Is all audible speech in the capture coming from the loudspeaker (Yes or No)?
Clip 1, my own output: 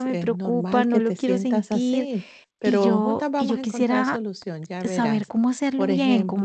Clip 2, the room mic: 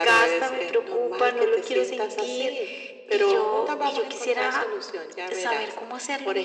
Yes